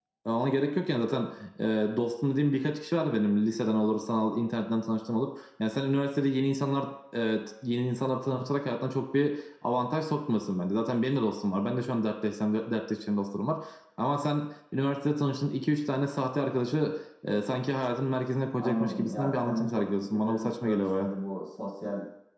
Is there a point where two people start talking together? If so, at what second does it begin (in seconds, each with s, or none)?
18.6 s